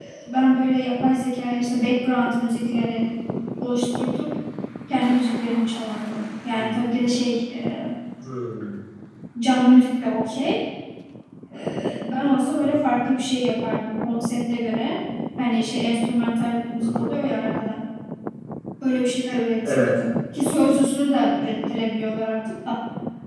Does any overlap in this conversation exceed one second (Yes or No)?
No